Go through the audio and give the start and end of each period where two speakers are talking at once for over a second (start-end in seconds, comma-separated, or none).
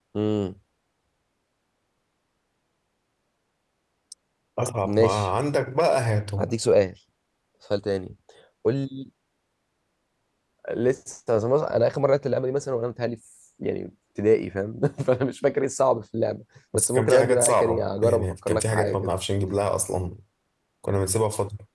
16.7-19.1